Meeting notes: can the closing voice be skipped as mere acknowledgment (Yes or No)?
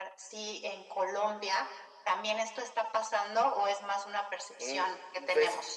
No